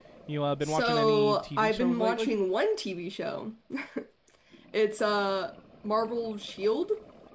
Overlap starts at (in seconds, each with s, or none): 0.6 s